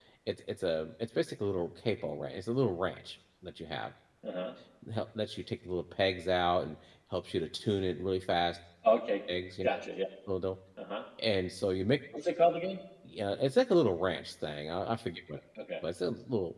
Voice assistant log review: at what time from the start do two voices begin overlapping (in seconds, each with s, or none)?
none